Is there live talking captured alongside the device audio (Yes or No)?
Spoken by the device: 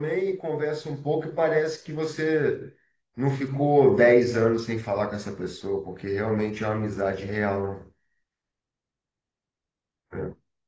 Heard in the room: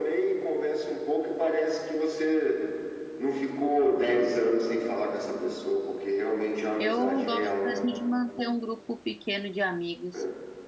Yes